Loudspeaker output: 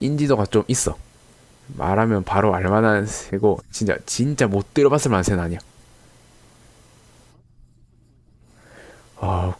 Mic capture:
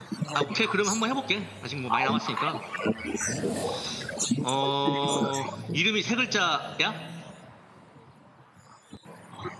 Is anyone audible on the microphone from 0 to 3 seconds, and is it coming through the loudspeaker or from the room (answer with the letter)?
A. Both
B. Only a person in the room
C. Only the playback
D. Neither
A